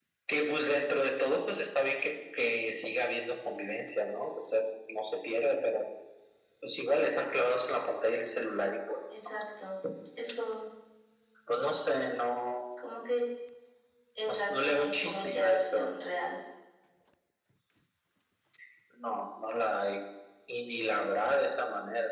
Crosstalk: present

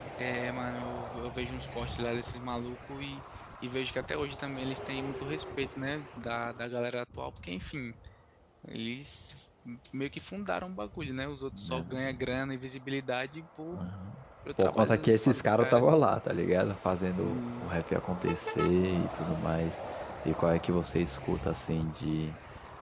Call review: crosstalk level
present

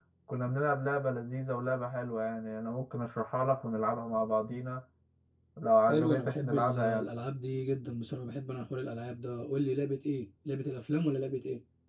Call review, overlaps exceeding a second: present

